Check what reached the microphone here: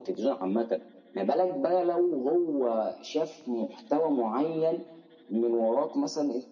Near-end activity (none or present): none